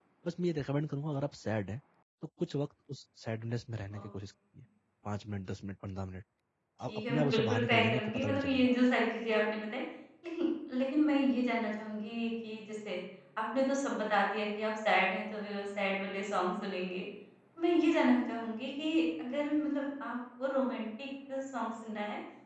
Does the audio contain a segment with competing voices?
Yes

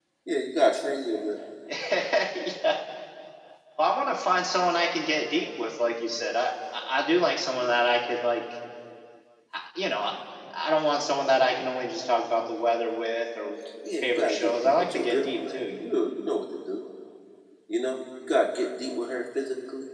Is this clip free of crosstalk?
No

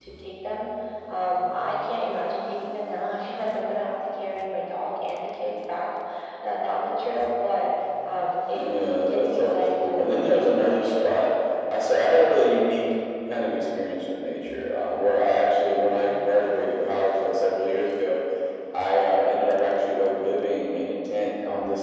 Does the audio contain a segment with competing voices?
Yes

